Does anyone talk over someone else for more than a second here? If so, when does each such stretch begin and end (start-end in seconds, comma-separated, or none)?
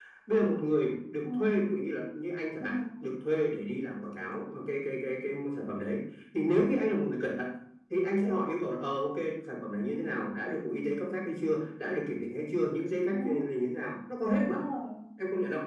none